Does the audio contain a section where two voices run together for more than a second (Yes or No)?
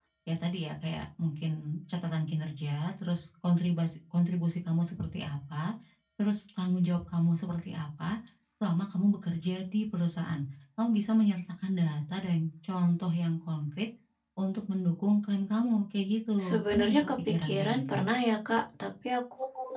Yes